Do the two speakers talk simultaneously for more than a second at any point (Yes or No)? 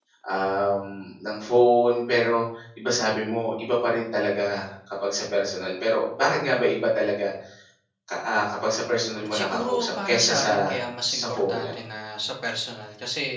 Yes